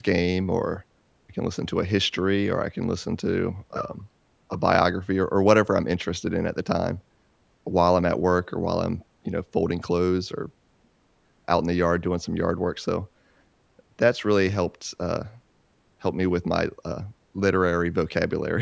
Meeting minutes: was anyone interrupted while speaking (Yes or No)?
No